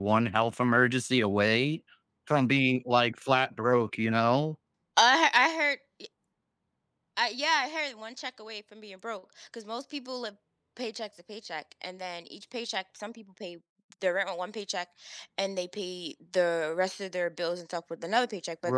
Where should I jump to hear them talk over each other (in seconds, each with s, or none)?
none